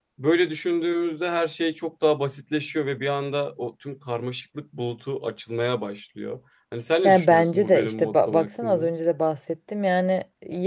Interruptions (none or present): present